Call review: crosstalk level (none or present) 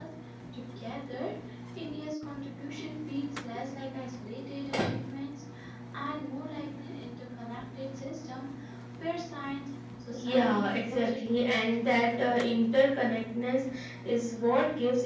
present